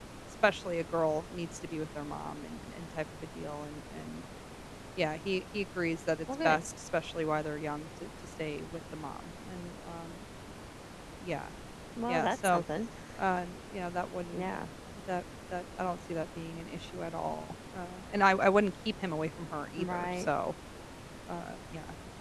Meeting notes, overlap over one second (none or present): none